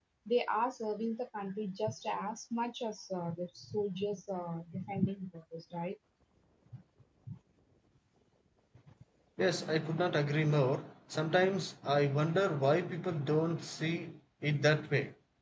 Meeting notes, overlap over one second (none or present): none